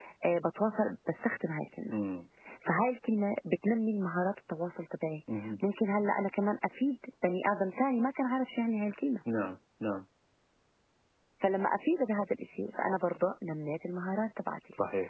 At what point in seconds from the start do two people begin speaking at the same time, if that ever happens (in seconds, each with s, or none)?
none